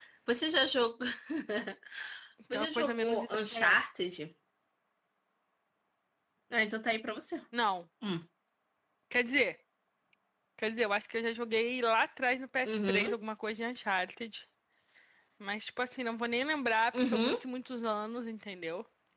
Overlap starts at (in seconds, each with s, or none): 2.5 s